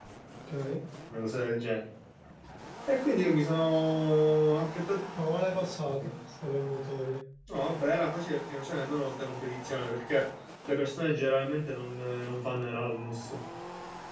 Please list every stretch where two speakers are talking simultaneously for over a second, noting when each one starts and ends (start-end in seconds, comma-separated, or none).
none